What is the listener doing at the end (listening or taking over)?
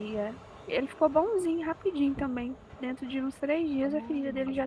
listening